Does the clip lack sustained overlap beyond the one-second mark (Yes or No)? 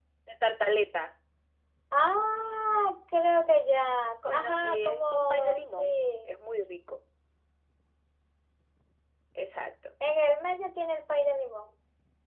No